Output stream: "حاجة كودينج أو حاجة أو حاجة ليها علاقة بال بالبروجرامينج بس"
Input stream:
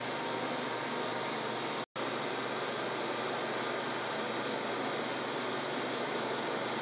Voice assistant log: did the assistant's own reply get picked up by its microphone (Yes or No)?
No